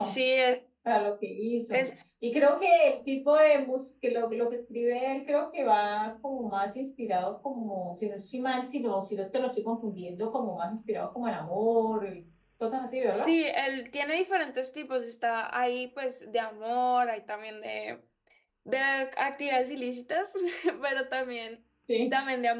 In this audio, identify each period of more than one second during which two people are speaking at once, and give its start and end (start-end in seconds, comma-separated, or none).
none